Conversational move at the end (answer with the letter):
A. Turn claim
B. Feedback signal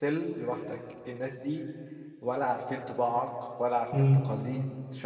B